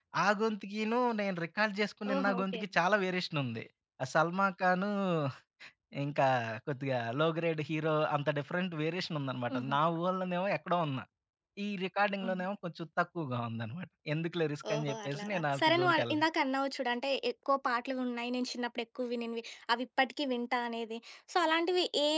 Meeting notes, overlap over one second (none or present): present